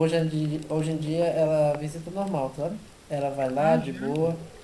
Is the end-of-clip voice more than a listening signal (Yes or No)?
No